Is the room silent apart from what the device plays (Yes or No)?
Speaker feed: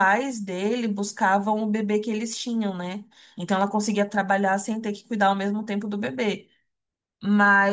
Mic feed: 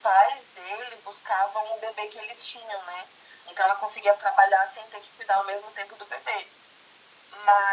Yes